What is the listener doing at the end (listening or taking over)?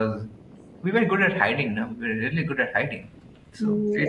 taking over